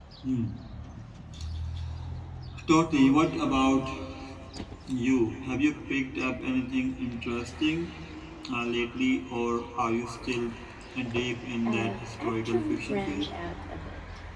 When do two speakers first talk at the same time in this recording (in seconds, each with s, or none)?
11.6 s